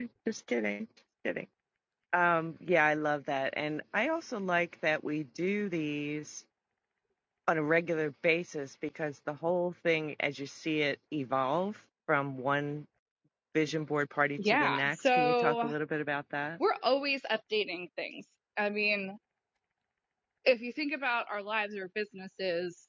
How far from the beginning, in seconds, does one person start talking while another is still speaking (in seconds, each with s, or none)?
14.4 s